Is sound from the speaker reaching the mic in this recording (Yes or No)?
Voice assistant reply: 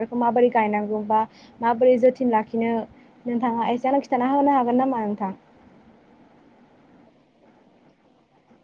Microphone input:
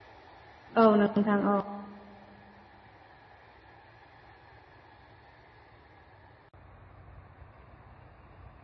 No